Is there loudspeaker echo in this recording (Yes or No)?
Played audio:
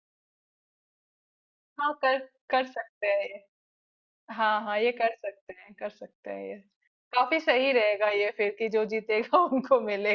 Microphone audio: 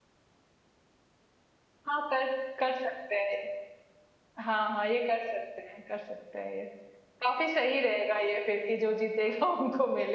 Yes